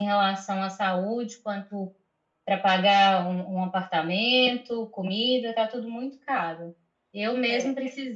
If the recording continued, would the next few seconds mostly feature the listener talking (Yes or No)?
No